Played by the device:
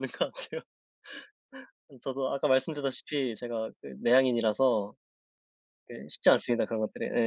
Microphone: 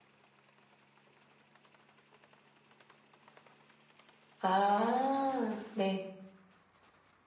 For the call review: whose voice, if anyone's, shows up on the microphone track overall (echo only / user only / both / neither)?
user only